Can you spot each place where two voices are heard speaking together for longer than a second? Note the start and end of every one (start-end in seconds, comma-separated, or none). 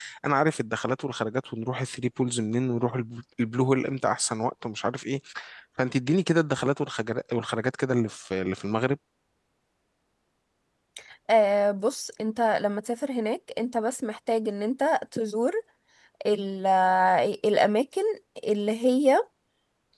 none